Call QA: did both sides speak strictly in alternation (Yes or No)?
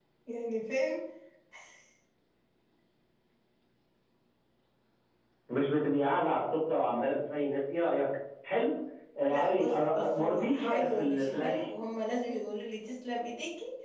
No